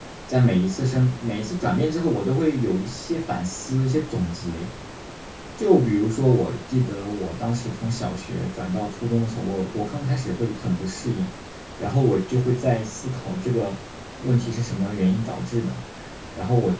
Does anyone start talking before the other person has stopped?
No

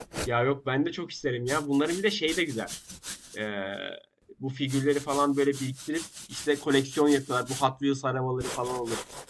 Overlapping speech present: No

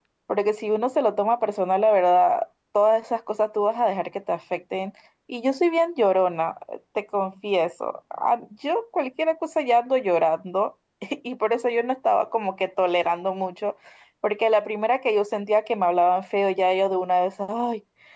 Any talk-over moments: No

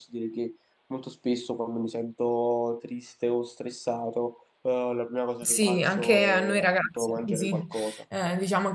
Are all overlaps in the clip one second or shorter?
No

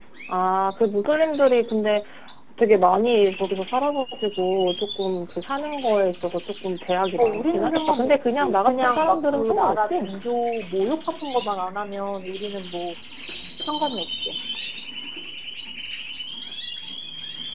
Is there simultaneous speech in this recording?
Yes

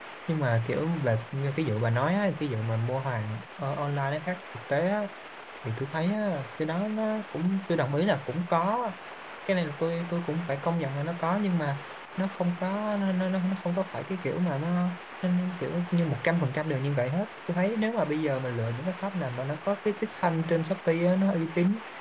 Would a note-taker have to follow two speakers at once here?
No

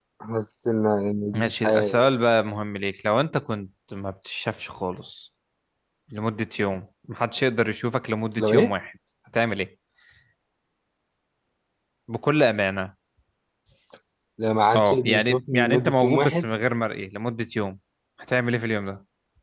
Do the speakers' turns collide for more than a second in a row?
Yes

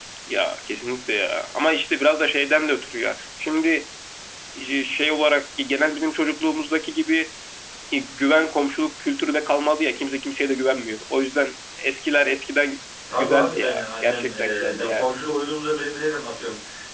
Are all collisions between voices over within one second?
No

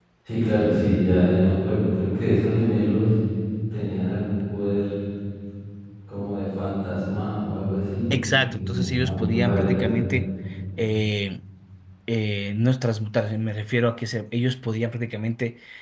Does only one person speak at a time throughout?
No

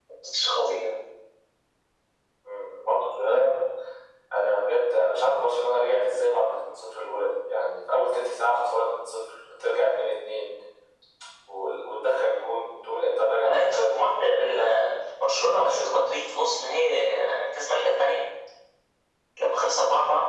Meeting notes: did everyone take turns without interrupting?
No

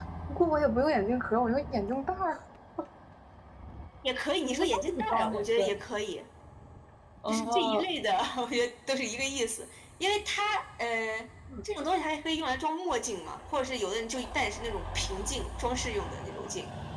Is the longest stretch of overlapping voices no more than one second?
No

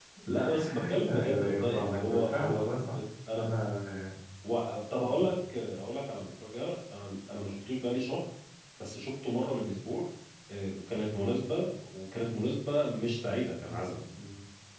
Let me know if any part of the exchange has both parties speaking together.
Yes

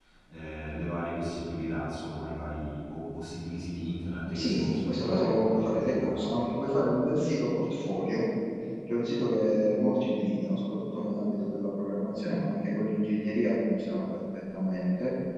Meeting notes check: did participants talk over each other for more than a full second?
Yes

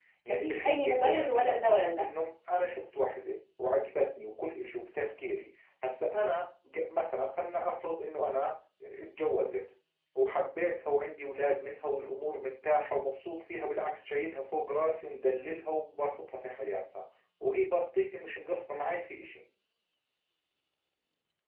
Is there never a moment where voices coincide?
No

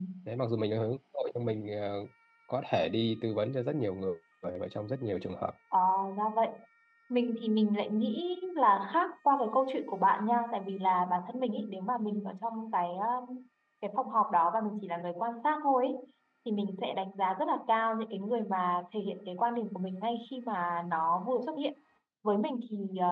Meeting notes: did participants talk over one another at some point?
No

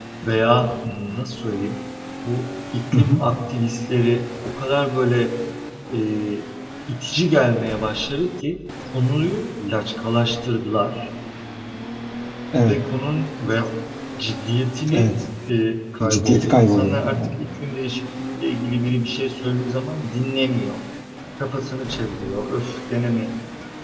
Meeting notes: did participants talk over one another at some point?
Yes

